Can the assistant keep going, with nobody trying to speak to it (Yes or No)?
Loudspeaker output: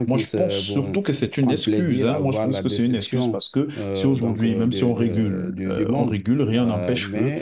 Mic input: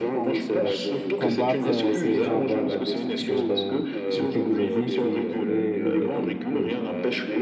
No